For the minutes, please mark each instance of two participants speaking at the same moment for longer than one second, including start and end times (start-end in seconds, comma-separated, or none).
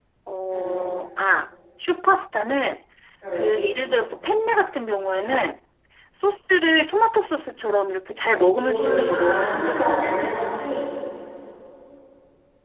8.6-10.3